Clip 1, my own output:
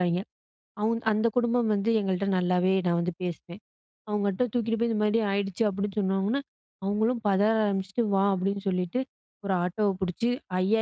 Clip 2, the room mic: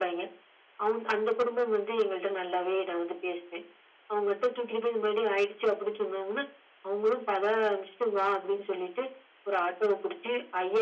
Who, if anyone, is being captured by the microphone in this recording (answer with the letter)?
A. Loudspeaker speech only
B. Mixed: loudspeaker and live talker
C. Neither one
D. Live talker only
A